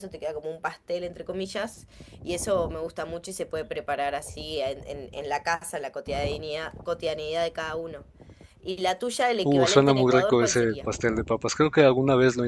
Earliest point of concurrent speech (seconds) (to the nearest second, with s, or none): 9 s